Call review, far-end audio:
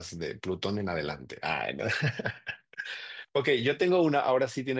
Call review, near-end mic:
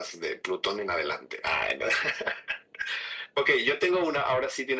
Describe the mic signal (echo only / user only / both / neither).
echo only